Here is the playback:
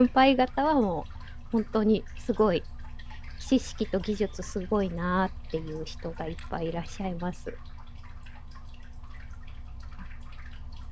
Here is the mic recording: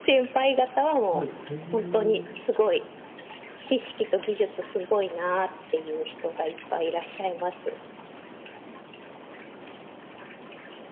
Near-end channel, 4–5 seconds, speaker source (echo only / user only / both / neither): echo only